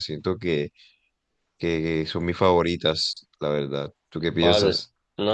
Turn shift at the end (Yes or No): Yes